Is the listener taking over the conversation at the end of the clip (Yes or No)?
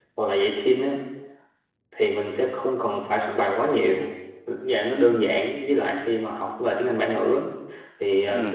No